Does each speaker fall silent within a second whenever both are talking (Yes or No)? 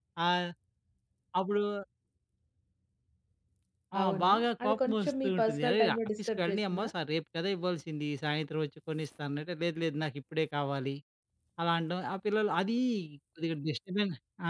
No